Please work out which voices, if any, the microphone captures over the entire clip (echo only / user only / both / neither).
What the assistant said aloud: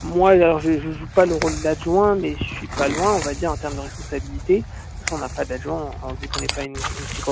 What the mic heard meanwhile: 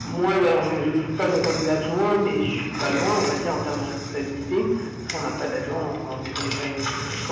echo only